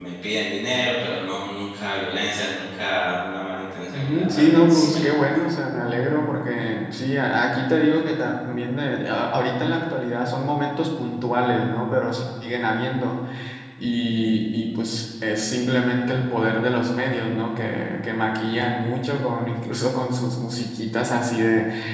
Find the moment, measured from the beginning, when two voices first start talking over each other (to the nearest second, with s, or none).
4 s